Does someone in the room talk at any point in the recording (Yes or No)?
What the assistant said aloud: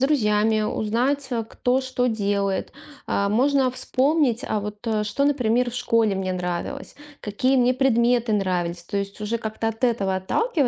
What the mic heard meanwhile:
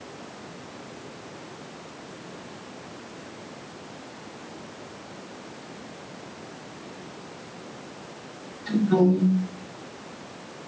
Yes